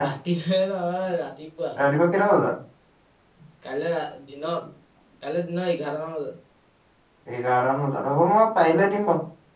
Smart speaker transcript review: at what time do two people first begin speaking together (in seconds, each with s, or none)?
none